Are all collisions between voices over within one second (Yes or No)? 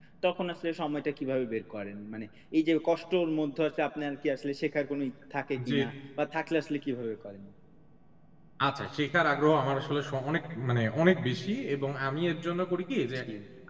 Yes